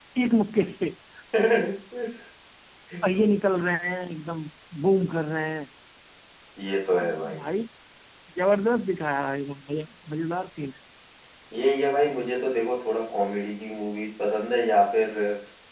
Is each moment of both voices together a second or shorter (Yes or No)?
Yes